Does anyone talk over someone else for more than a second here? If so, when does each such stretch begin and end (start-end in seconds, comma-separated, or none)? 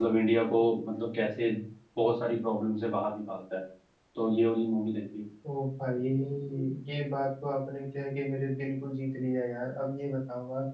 none